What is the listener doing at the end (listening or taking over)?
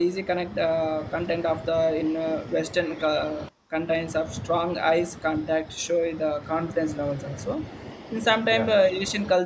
listening